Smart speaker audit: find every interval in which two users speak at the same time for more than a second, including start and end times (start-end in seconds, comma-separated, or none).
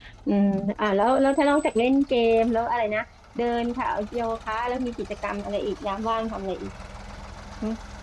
none